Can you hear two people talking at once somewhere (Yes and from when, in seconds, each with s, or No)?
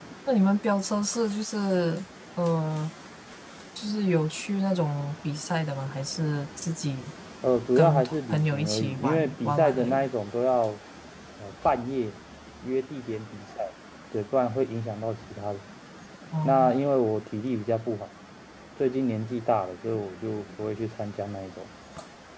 Yes, from 7.8 s